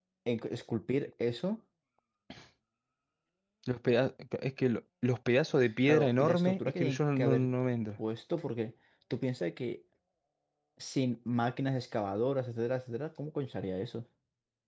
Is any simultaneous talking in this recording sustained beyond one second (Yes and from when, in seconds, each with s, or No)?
Yes, from 5.9 s